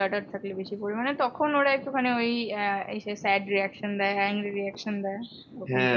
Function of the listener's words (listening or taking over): taking over